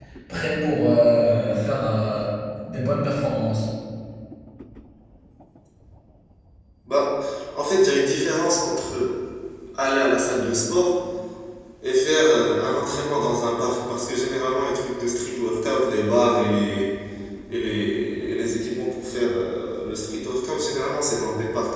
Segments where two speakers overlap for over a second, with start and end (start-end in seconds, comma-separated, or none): none